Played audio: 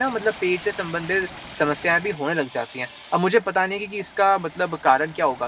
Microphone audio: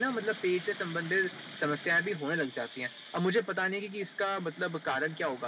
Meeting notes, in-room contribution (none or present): none